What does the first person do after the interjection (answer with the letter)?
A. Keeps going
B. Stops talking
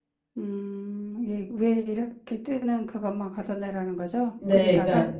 B